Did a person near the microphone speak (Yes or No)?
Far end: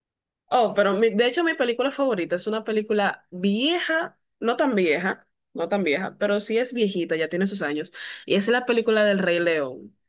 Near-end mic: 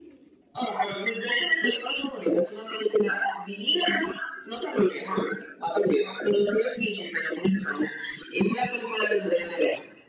No